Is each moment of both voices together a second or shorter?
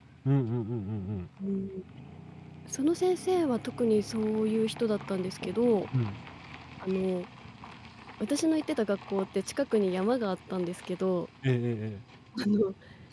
Yes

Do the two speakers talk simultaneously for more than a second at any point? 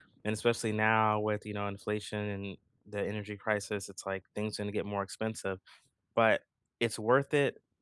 No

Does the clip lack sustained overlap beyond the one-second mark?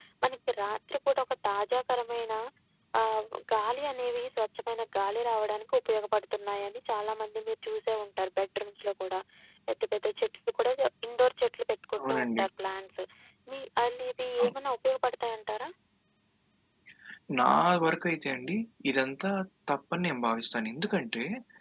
Yes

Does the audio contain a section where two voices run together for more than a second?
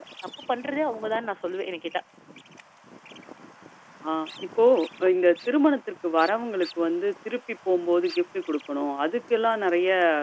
No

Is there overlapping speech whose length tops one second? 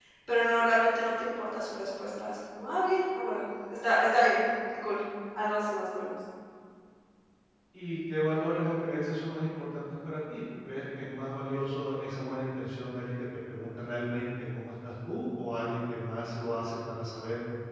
No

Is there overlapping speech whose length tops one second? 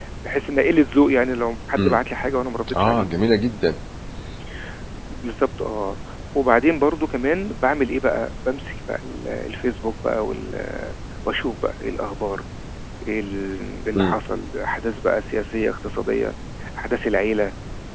No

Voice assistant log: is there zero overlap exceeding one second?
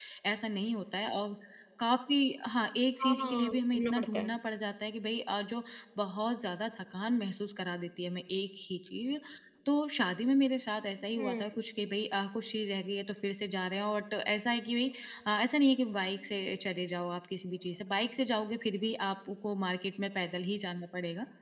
No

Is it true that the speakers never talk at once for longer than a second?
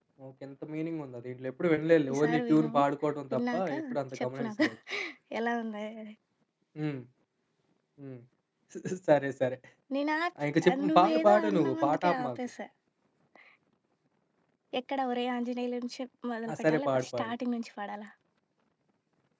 No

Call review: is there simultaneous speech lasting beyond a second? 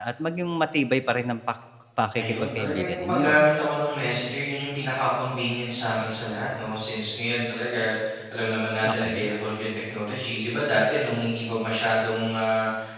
Yes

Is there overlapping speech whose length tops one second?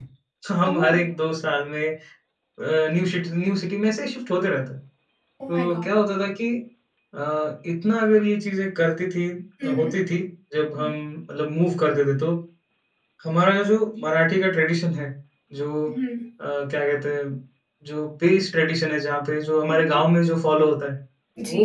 No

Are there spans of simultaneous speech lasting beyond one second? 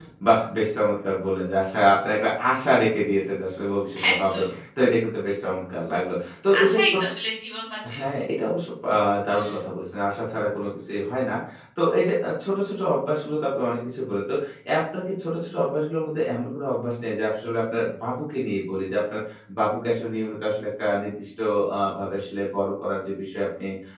No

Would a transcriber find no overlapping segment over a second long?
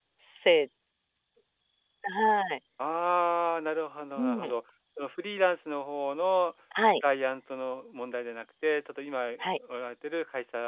Yes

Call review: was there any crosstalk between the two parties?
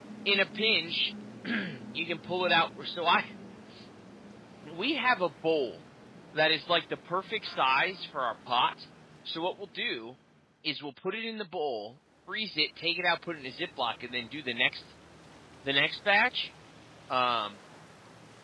No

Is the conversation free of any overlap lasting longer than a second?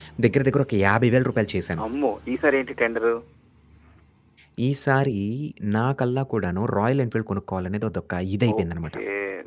Yes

